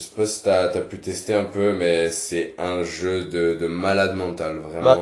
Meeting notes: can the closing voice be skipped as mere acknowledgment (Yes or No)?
No